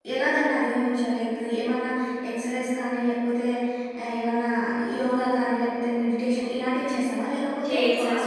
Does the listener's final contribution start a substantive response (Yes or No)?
No